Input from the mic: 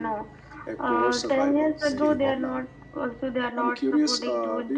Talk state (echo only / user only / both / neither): both